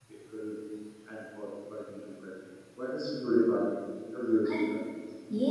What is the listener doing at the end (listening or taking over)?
taking over